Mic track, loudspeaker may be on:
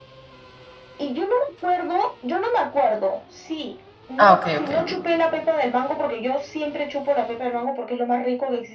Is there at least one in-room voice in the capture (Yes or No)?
Yes